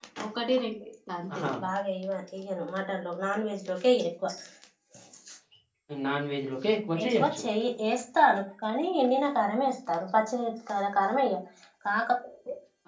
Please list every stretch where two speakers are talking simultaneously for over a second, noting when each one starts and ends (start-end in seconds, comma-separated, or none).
none